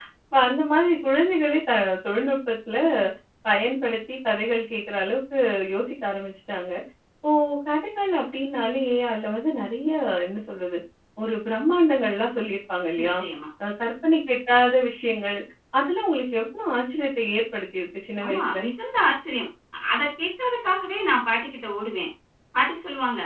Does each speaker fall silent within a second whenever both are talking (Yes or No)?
Yes